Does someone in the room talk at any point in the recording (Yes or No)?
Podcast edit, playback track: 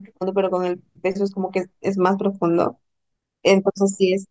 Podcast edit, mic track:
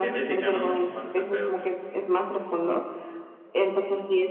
Yes